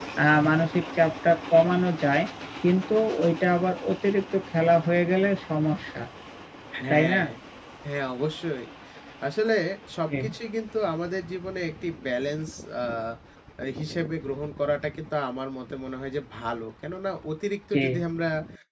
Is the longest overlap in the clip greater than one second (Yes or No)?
No